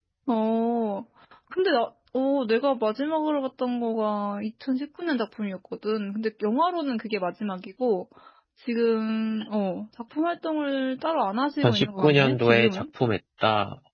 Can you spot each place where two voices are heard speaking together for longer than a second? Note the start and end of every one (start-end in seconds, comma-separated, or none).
11.6-12.8